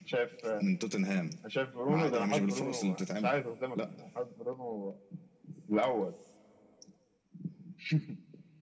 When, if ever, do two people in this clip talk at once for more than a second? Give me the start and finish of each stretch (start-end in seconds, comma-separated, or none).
1.9-3.3